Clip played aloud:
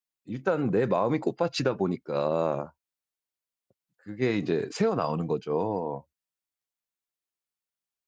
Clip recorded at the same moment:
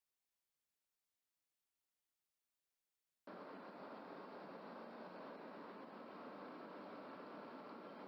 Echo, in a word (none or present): none